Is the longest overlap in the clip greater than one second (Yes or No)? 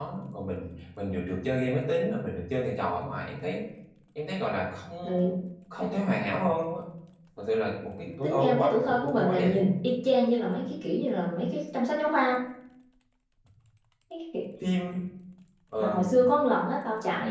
Yes